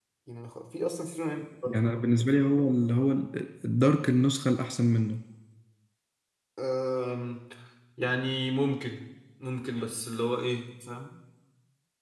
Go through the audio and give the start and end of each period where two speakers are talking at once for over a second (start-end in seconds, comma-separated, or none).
none